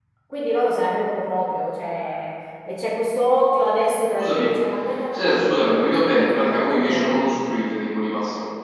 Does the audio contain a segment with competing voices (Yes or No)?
Yes